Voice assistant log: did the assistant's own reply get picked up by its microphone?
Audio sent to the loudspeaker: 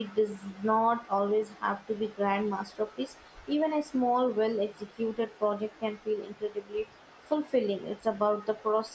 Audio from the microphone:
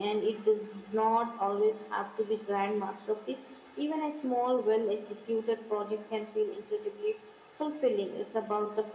Yes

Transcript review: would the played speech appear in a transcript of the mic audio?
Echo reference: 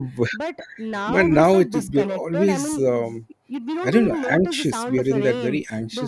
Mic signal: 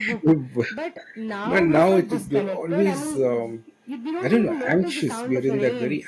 Yes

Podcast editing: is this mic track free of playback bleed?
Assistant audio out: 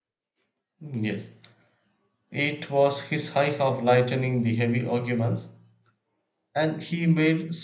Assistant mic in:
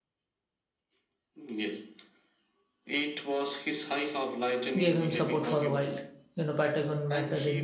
No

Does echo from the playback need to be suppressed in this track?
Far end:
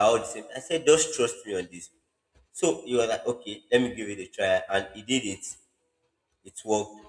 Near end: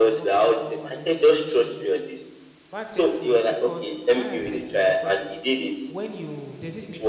Yes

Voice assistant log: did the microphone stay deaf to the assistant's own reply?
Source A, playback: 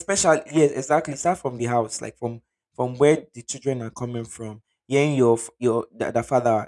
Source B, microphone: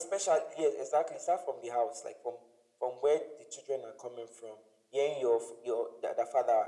No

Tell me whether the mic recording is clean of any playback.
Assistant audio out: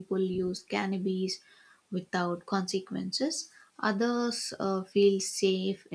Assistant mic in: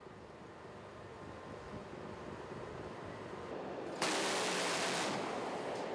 Yes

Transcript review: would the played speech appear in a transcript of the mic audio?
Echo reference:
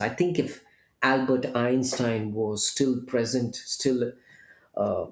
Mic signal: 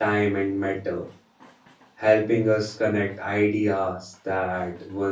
No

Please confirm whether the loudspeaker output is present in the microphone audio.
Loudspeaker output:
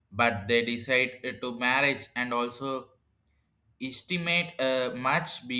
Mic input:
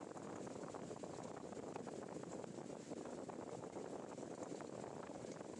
No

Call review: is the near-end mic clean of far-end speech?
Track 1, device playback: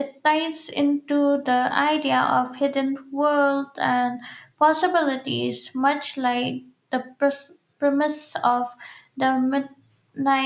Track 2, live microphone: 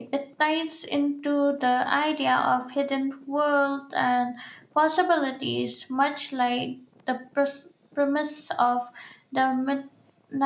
No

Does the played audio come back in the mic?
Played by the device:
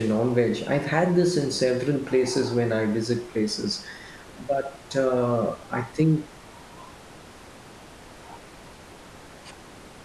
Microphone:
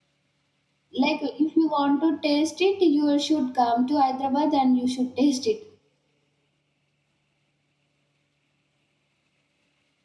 No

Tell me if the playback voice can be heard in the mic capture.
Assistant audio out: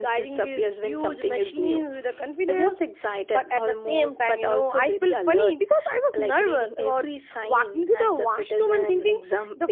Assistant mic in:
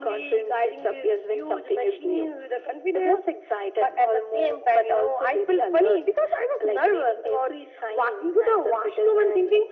Yes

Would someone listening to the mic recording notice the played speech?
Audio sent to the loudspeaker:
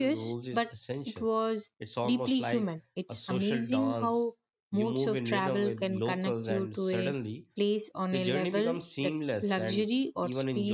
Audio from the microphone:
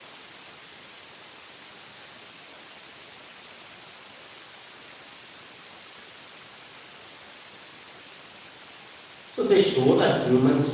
No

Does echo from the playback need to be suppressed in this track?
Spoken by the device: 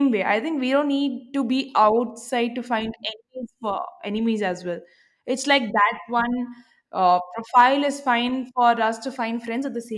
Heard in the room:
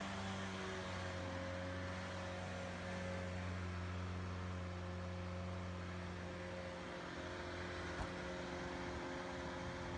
No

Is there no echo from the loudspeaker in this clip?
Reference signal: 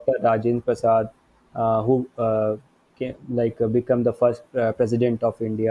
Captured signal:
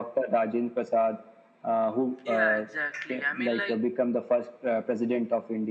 No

